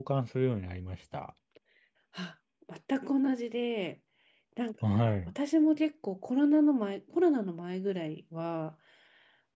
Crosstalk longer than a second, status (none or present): none